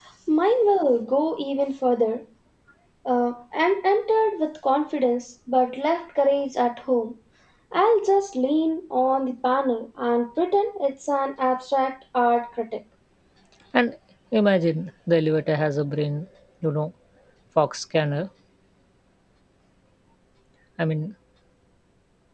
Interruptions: none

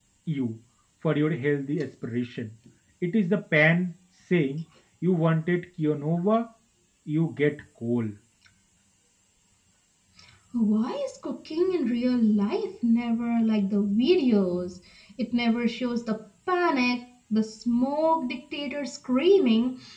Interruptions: none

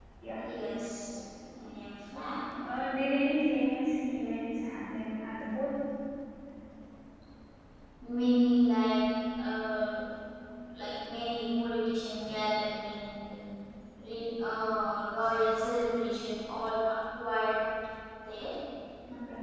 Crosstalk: none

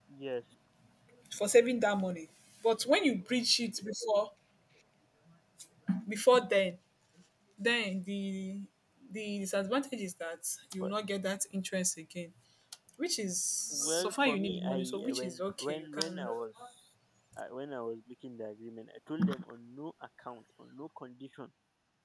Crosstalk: present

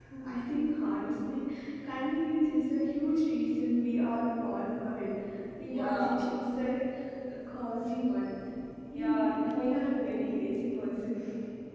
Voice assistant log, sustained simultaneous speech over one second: present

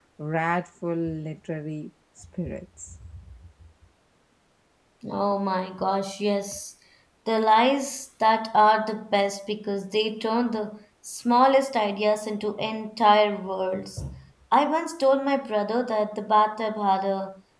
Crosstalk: none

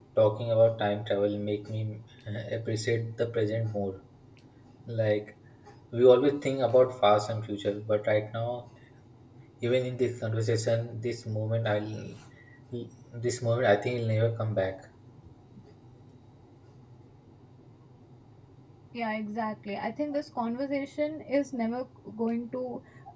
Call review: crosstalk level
none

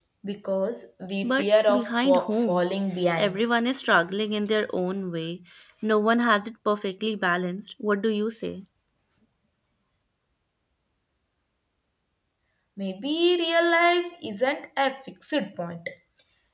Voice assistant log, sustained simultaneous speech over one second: present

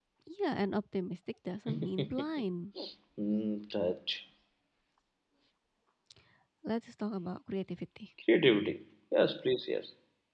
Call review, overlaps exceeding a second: none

